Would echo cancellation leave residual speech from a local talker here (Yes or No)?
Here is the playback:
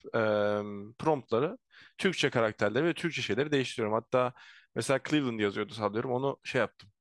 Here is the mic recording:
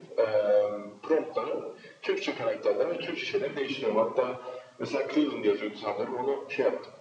No